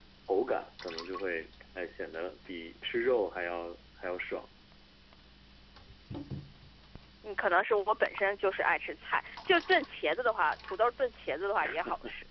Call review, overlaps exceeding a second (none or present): none